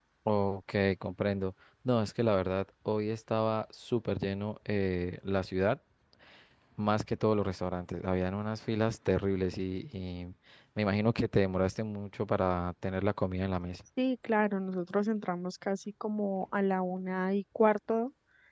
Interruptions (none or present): none